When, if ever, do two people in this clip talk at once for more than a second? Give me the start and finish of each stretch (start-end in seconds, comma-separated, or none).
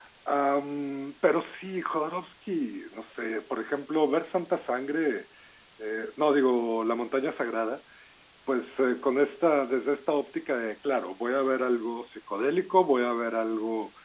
none